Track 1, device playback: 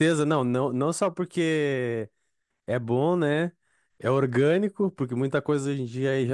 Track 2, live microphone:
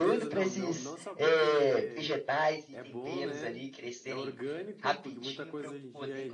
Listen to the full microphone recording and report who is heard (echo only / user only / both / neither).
both